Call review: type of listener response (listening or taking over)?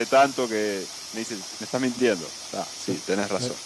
taking over